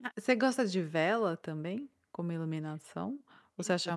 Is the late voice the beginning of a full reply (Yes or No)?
No